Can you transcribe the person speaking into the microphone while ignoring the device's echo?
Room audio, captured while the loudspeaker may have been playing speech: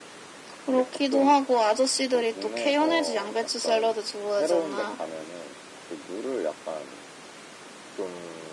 none

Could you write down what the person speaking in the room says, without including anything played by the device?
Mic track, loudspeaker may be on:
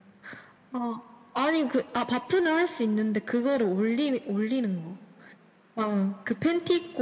none

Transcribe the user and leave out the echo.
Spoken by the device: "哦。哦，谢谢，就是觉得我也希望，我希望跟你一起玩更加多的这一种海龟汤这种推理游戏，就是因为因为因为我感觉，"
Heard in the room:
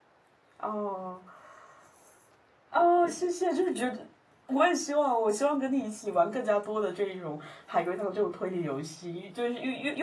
none

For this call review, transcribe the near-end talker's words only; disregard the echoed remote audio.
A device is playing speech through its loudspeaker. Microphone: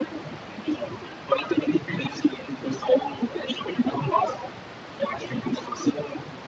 none

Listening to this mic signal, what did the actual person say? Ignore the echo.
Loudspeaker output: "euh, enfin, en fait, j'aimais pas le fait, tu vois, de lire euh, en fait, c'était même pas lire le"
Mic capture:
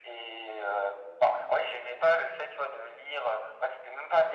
none

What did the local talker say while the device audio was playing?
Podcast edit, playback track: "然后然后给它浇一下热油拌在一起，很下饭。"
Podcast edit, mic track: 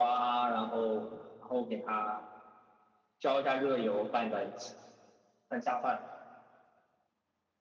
none

